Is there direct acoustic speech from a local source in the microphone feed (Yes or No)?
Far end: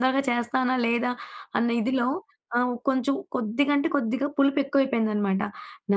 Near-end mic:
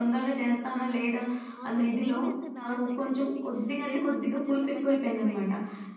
Yes